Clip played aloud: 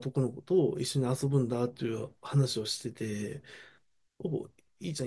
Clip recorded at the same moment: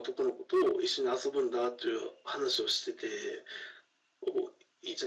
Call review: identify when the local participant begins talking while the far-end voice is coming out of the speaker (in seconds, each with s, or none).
none